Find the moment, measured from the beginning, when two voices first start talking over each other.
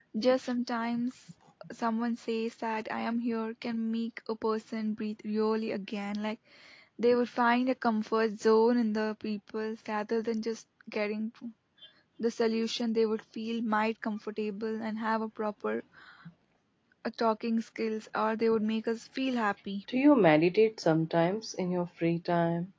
none

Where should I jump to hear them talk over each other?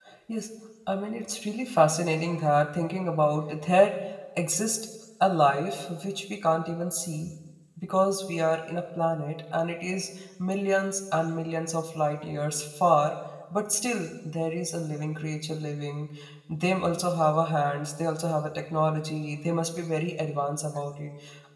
none

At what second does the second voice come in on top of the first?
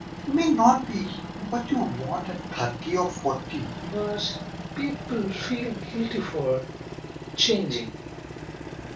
none

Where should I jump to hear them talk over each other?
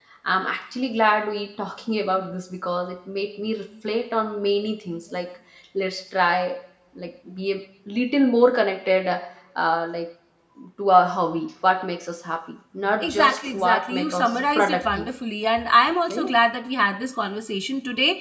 13.0 s

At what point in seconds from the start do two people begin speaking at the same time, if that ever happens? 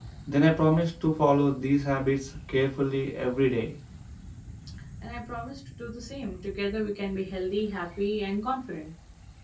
none

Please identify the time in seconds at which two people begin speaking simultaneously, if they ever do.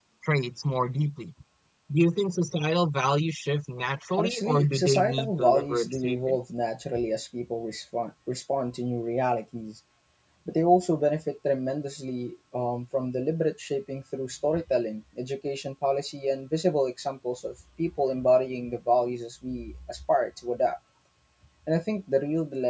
4.2 s

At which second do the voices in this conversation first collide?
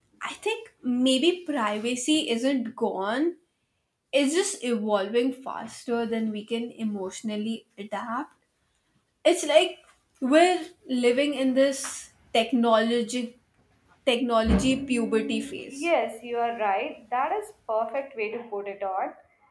14.5 s

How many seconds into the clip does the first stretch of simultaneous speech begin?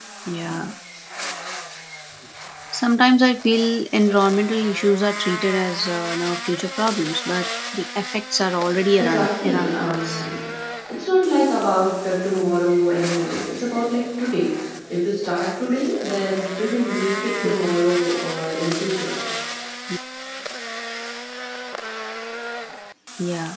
9.0 s

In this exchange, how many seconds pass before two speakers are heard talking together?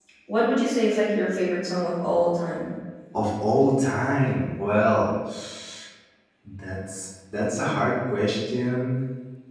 none

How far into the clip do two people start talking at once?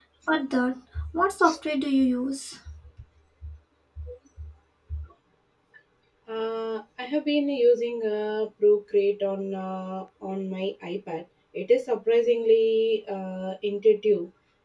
none

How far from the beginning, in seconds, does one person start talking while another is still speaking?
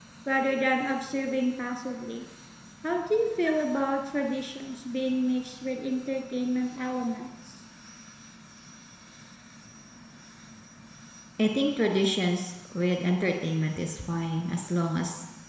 none

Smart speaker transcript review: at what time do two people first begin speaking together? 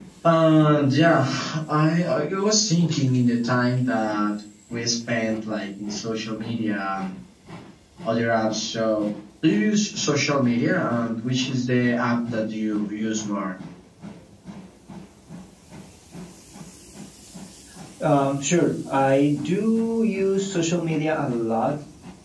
none

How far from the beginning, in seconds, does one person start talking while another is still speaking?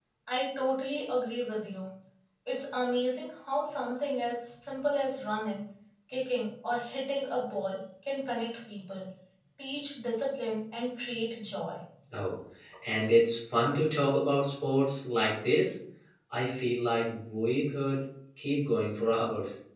none

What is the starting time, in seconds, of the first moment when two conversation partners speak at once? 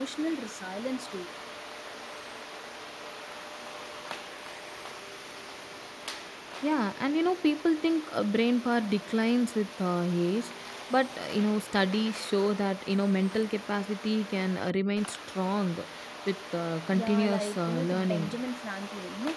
16.9 s

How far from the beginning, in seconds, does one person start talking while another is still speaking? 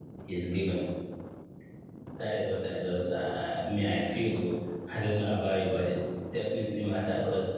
none

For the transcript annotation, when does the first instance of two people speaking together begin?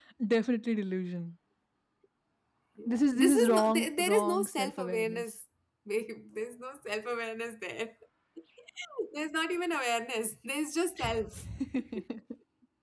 2.9 s

